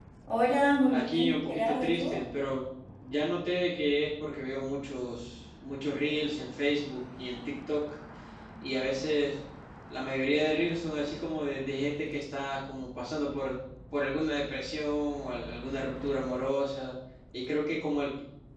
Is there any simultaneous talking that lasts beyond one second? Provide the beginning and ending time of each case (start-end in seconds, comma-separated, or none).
0.9-2.2